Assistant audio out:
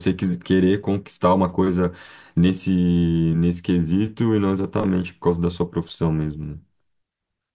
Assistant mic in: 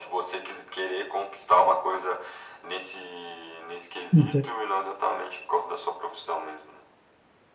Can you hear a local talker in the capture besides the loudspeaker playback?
Yes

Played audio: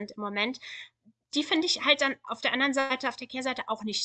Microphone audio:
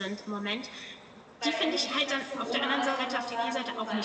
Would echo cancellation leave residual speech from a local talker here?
Yes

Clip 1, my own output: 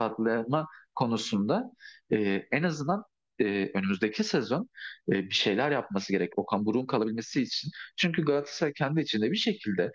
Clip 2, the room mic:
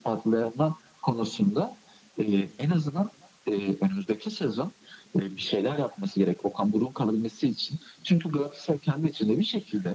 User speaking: No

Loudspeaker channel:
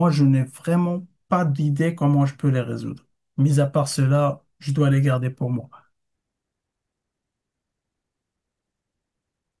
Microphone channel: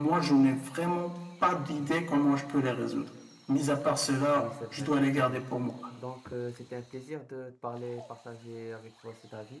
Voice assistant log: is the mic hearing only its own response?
No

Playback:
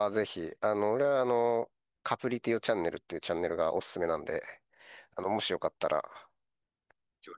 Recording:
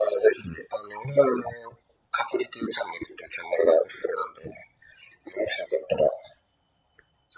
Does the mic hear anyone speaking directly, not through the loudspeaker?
No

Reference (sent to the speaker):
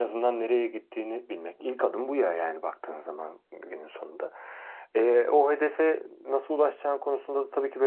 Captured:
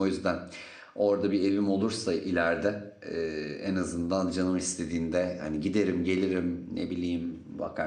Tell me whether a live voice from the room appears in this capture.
Yes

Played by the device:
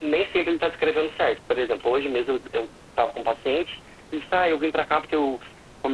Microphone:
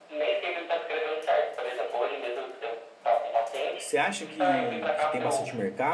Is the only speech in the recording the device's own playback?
No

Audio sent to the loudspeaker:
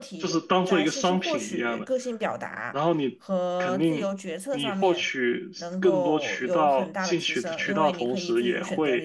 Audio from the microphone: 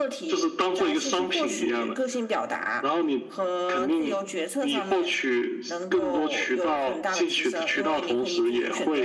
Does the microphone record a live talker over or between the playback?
No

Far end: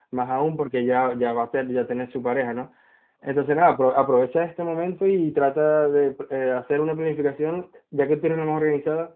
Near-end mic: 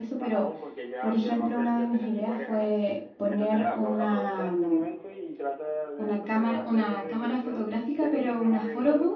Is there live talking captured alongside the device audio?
Yes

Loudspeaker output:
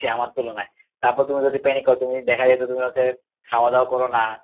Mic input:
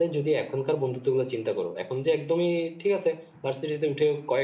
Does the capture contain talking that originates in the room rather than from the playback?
Yes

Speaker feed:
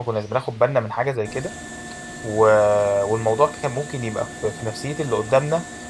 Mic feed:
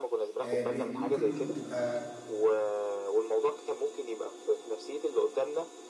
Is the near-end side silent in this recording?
No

